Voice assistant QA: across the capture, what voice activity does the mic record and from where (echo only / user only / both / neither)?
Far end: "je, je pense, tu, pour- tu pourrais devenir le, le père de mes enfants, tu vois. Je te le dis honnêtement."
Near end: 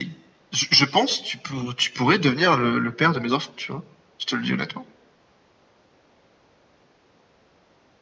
echo only